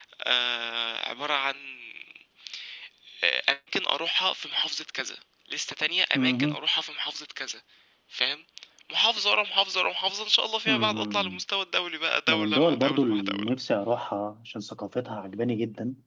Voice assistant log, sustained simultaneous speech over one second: present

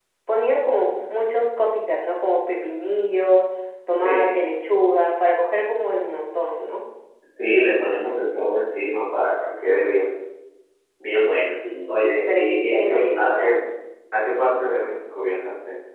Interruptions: present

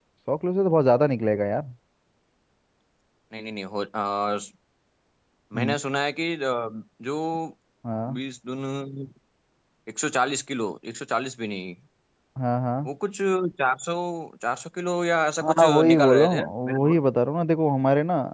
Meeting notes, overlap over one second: present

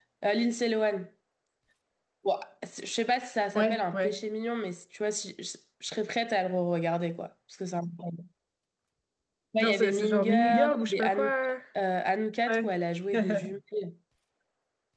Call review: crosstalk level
present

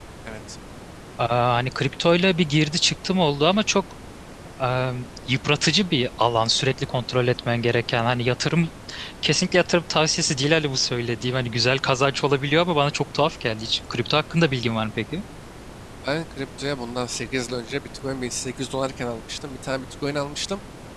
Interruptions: none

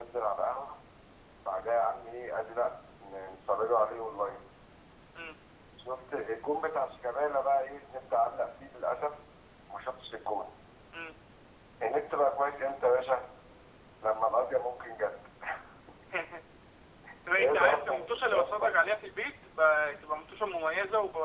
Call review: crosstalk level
present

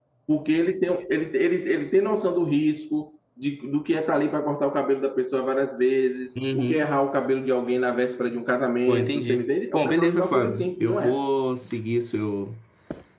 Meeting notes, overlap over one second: present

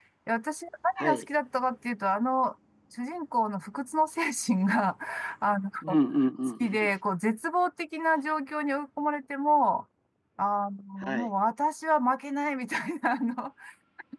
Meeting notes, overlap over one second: none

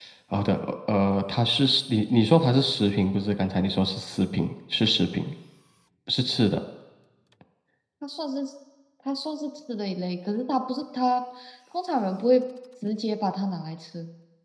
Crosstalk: none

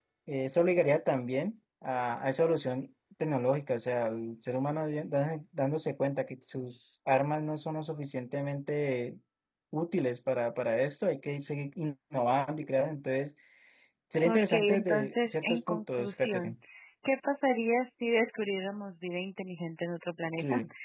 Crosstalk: present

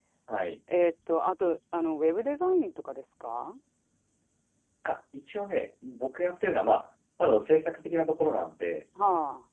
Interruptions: none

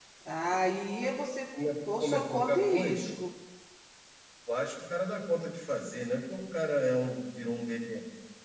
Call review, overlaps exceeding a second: present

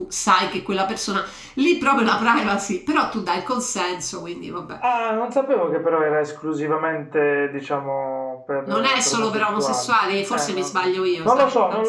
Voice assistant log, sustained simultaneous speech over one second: present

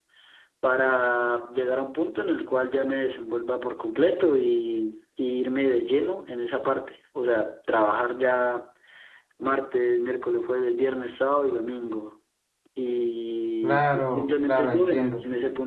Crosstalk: present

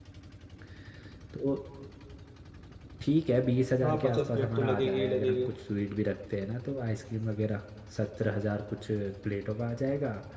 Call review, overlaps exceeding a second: present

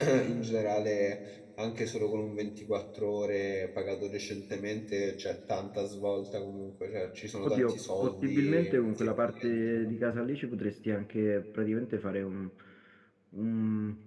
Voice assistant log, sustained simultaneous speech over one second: present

